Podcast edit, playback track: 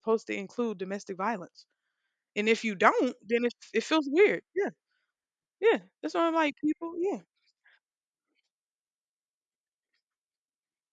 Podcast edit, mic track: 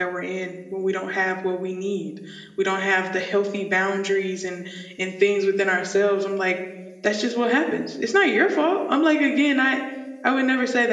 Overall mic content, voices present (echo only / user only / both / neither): user only